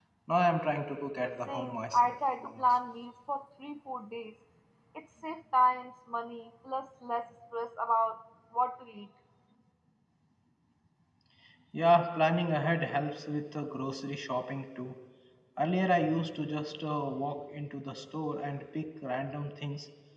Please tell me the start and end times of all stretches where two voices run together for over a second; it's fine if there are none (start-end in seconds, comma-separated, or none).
1.5-2.7